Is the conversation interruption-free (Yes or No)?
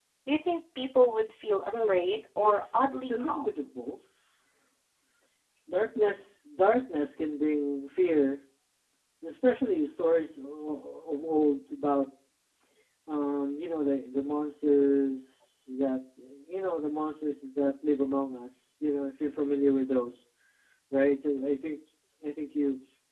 No